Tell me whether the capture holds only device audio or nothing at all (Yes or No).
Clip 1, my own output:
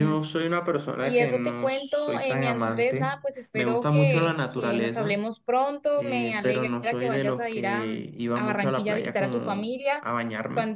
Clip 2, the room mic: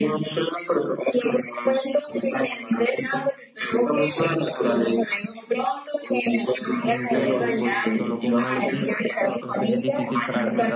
No